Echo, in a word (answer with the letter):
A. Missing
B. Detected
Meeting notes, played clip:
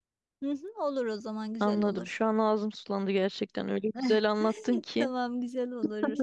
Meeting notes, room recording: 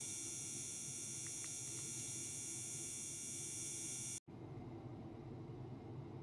A